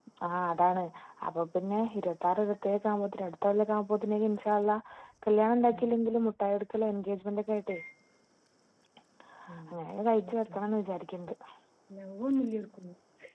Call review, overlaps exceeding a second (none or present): none